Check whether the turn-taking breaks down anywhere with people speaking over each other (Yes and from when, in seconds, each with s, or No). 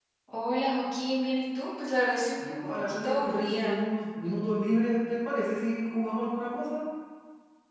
Yes, from 2.4 s